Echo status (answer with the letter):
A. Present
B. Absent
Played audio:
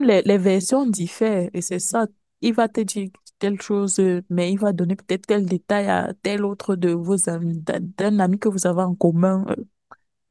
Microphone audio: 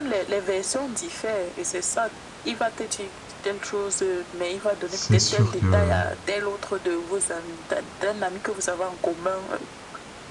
A